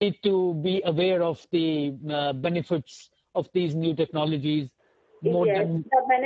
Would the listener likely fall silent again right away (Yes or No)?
No